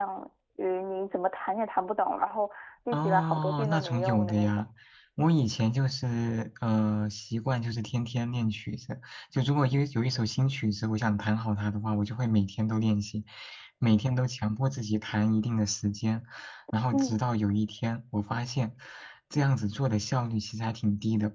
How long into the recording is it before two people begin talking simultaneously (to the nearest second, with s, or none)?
3 s